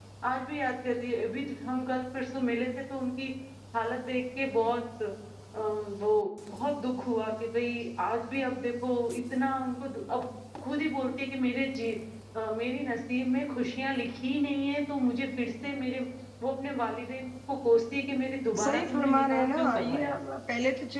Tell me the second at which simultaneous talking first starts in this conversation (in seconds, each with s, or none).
18.6 s